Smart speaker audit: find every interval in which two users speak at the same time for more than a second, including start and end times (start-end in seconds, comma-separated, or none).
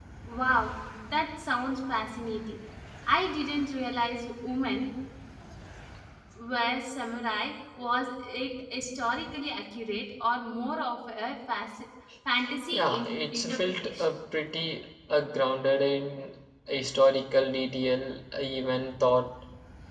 12.7-14.1